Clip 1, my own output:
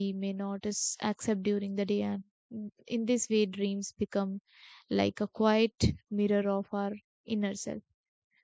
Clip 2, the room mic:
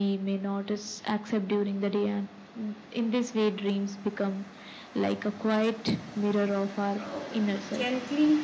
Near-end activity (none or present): present